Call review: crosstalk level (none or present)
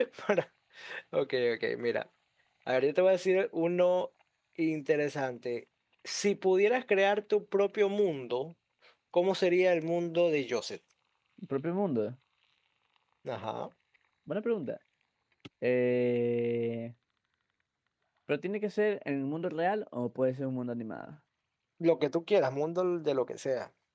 none